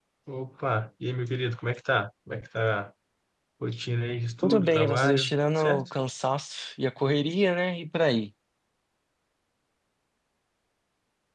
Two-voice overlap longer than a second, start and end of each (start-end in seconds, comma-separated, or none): 4.4-5.8